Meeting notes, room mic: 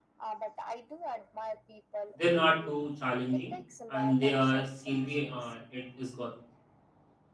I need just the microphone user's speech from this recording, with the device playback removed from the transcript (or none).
They're not too challenging, and their scenery uh, it is gorgeous.